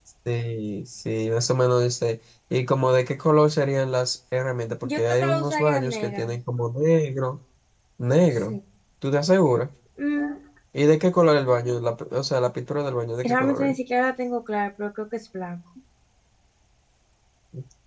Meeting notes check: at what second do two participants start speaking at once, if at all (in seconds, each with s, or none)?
4.8 s